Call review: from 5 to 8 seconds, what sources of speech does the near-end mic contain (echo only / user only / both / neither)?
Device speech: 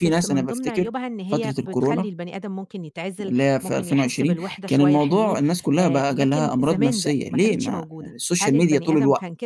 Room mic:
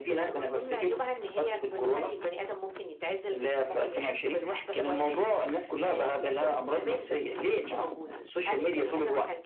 echo only